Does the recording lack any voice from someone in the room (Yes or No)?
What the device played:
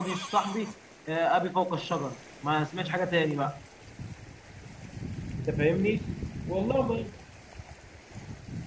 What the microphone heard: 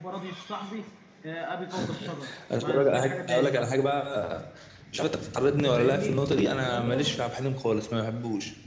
No